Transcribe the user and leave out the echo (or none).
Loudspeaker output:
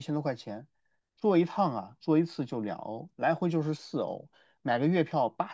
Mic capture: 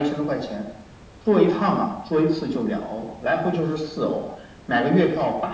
none